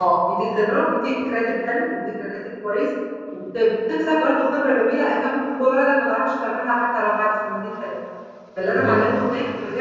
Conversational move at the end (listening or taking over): listening